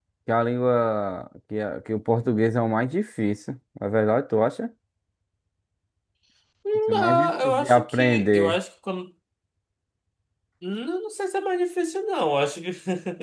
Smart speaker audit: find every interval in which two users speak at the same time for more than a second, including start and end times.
6.9-8.6

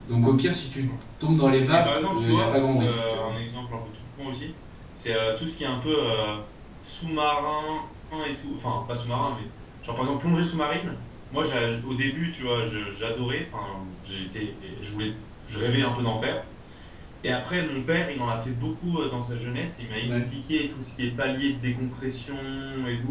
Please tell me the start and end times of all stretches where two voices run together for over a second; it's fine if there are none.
1.7-3.4

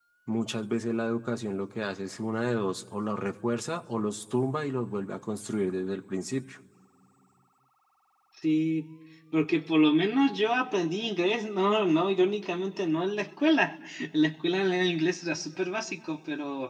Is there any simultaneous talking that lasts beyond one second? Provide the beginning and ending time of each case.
none

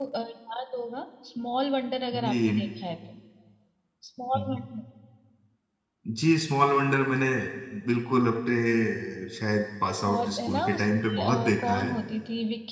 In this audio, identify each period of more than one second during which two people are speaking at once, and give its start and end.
10.1-11.9

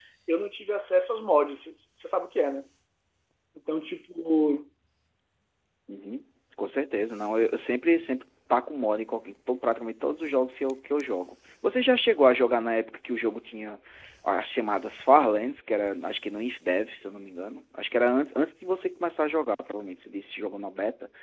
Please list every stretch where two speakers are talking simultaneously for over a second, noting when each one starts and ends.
none

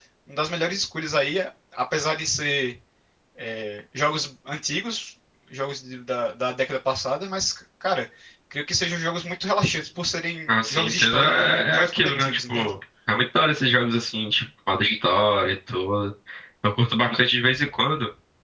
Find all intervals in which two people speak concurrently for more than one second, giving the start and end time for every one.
10.5-12.7

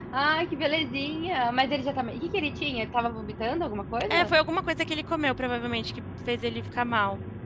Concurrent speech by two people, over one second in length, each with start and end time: none

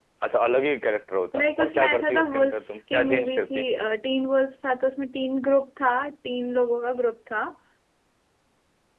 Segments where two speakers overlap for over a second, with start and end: 1.4-3.6

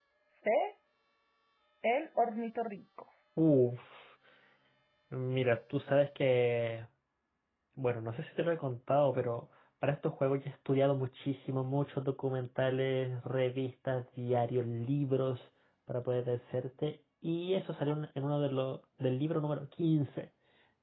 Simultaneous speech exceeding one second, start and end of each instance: none

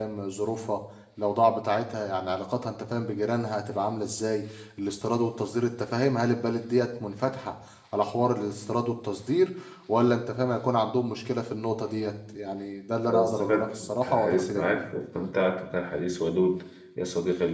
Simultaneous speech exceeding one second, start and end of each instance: 13.1-14.9

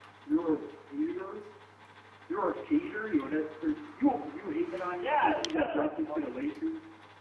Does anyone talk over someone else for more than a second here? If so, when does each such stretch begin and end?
5.0-6.4

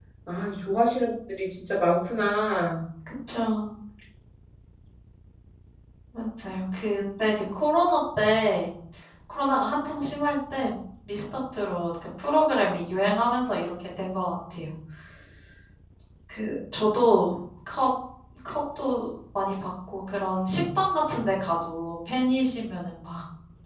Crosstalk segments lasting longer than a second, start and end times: none

